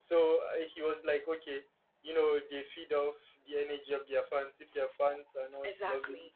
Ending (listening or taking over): listening